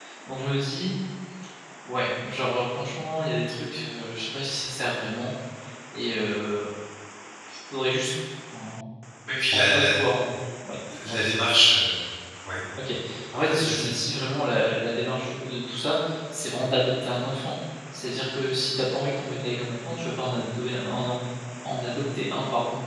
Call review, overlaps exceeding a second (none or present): none